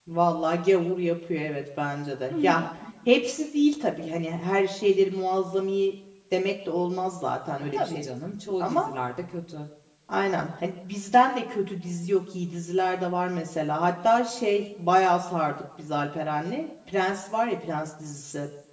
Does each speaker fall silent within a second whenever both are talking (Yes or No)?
Yes